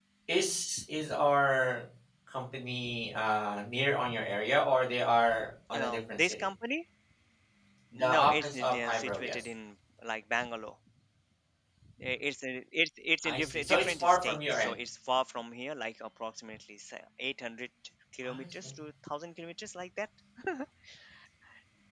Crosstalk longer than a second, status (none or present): present